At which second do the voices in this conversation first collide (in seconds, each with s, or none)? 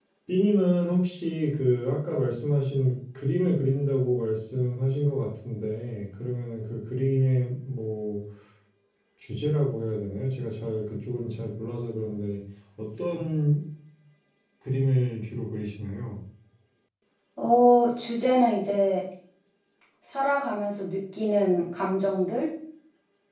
none